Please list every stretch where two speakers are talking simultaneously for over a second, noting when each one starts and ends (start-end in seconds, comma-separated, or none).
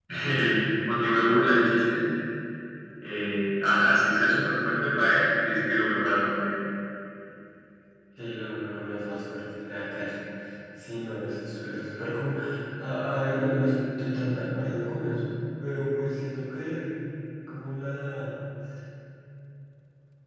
none